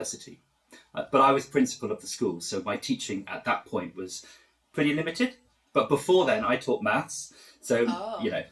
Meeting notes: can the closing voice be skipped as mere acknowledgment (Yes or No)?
Yes